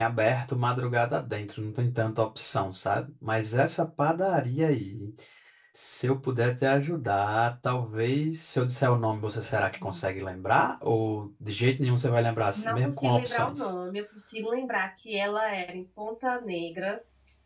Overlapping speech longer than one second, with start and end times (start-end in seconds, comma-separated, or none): 12.5-13.7